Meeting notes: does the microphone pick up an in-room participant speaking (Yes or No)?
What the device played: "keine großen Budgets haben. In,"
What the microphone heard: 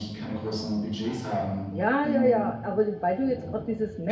Yes